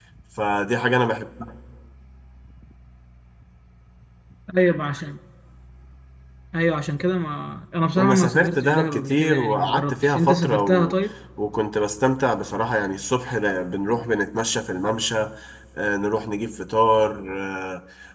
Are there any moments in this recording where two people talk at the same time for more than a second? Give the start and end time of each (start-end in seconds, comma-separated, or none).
8.0-11.0